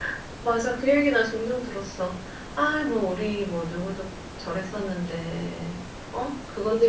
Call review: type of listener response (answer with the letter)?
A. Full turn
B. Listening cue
A